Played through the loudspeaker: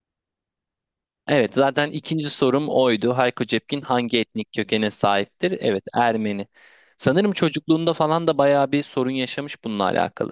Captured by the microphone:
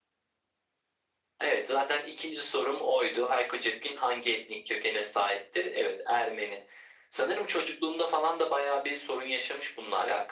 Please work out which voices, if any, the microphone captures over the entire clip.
echo only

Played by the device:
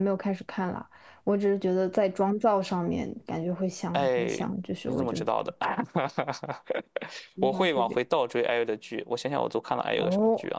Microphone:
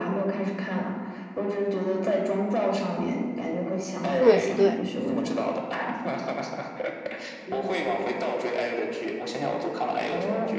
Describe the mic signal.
both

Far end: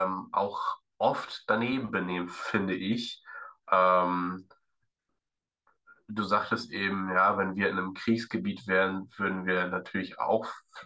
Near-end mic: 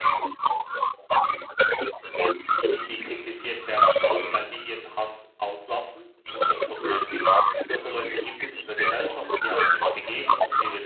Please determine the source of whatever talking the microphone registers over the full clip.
both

